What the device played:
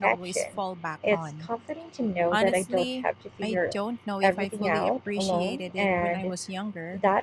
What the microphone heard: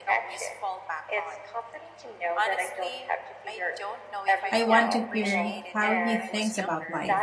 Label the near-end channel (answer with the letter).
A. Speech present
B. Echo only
A